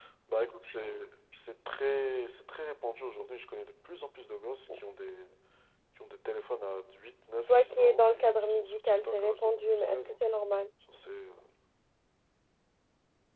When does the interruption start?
7.5 s

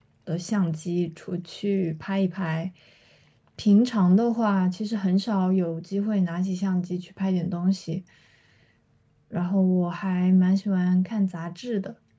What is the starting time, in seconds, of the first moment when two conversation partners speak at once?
none

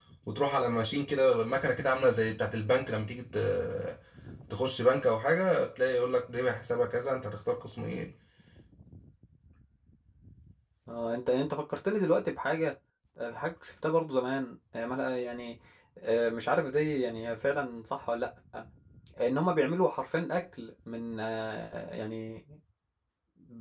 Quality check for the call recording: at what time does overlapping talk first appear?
none

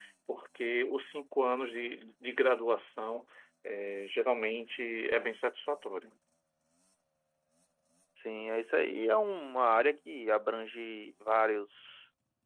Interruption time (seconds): none

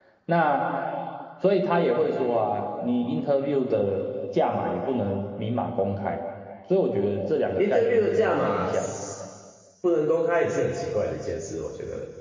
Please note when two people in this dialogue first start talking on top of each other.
7.6 s

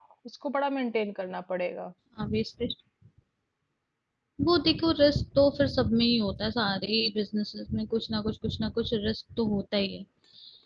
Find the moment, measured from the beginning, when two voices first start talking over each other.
none

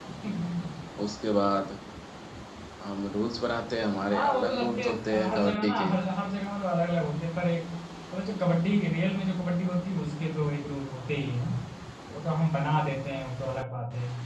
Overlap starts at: 4.1 s

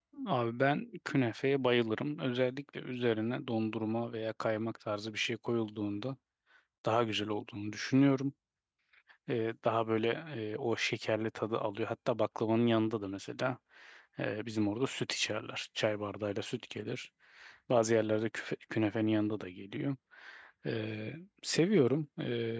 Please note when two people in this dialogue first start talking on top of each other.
none

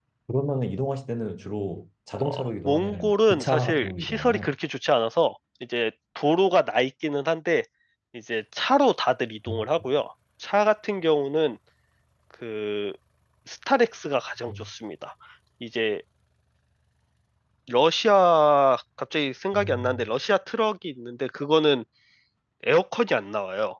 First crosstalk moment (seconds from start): 2.2 s

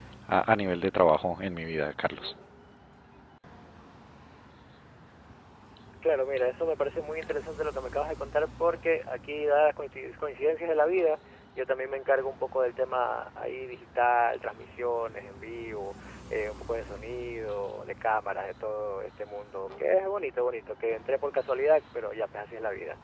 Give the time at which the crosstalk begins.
none

